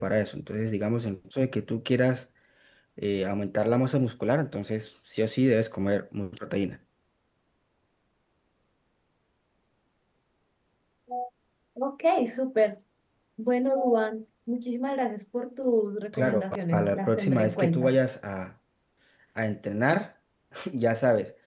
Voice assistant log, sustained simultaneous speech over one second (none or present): present